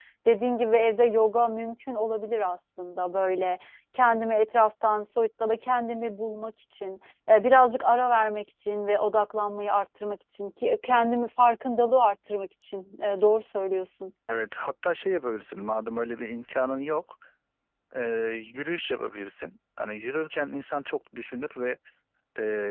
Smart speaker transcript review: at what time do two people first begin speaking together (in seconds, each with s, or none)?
none